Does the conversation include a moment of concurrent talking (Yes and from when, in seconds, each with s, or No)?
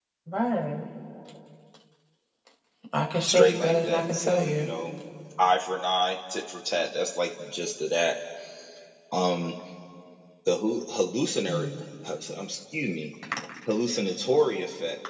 Yes, from 3.2 s